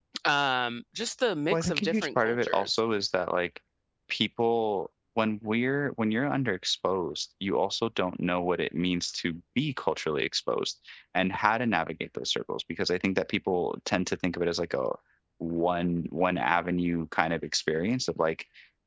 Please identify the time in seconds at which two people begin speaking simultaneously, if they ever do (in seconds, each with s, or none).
1.5 s